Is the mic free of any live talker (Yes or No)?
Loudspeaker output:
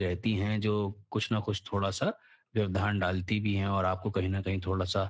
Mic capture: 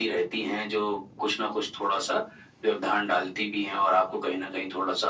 Yes